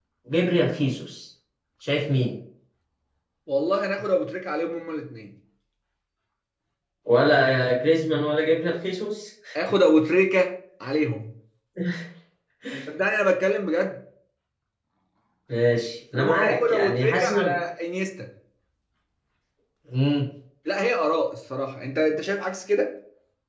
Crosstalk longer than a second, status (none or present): present